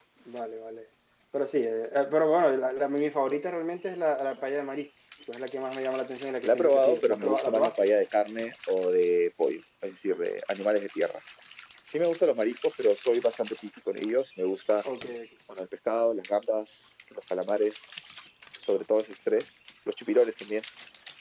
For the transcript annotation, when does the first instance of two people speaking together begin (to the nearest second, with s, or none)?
6 s